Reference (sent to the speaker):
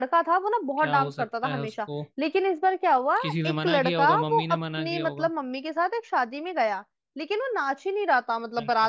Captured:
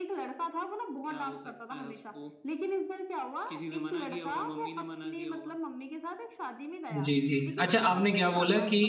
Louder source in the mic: user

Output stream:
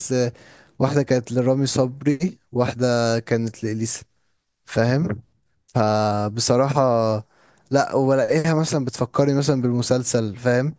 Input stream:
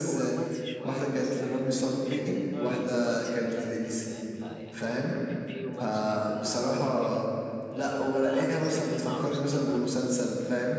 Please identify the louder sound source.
echo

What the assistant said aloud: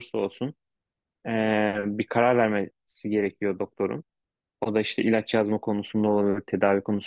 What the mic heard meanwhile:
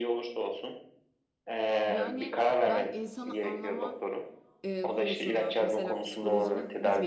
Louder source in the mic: echo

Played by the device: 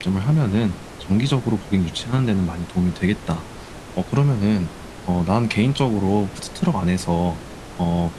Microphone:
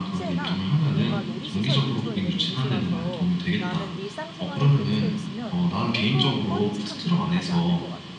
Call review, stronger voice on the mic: echo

